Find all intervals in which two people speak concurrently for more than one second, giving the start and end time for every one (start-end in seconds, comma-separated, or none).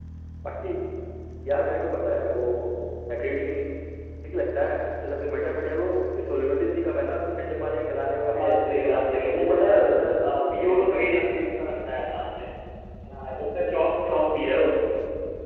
8.4-11.3